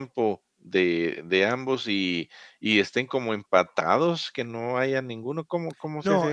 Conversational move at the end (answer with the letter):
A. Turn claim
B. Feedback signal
A